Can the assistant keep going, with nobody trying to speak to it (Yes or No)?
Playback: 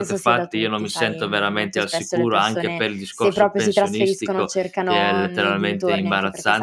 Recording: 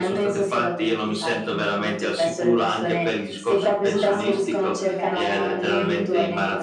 No